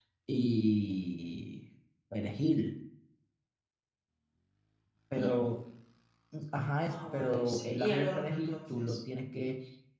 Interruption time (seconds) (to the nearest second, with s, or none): 7 s